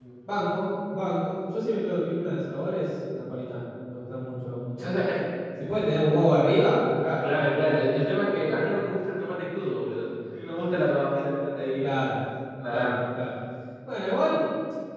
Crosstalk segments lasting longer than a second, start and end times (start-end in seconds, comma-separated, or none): none